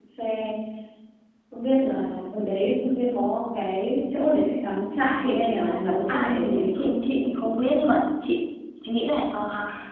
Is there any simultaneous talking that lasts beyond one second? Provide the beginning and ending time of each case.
5.2-7.5

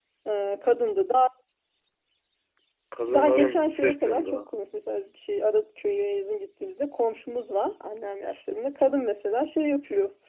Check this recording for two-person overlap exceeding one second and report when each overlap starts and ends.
3.1-4.4

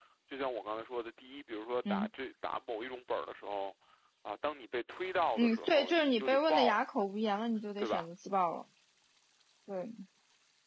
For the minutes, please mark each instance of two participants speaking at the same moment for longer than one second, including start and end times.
5.4-6.8

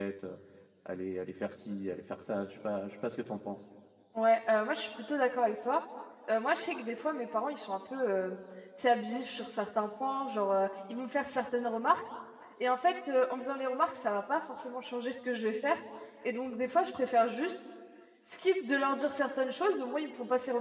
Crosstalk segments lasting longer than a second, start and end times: none

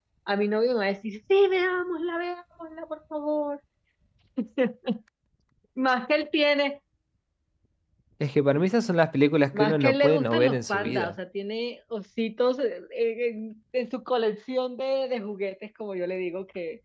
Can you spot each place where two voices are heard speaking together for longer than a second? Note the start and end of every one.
9.5-11.2

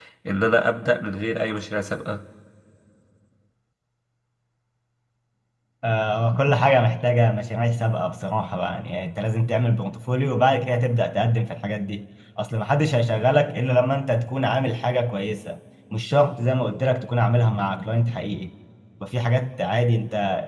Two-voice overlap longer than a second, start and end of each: none

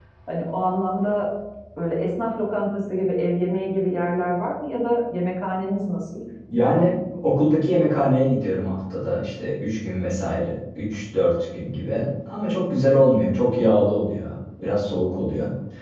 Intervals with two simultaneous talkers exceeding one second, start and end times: none

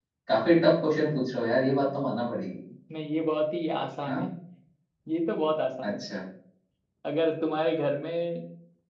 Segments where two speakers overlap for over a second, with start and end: none

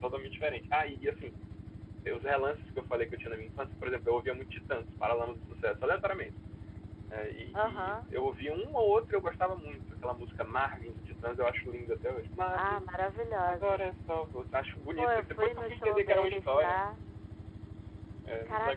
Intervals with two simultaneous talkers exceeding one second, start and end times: 15.0-16.8

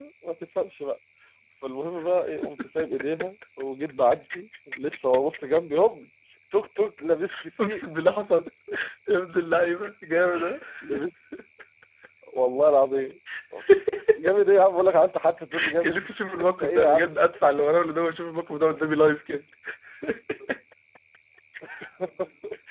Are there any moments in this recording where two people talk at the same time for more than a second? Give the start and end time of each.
15.8-17.1

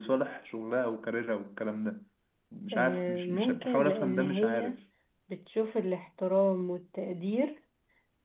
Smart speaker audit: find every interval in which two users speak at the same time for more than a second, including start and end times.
2.7-4.8

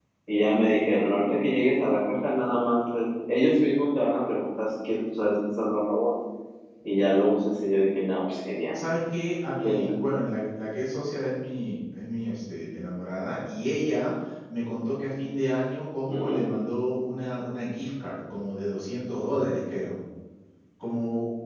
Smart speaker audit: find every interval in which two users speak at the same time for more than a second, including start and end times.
none

